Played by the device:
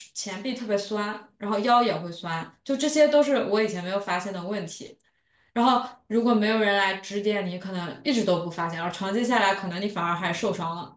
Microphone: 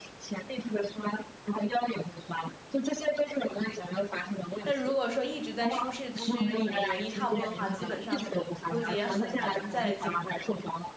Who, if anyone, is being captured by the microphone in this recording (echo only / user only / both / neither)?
both